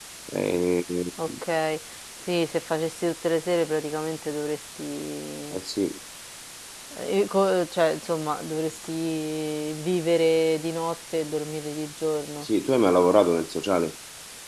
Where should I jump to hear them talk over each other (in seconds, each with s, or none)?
none